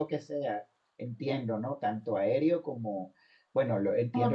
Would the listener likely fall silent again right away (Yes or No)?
Yes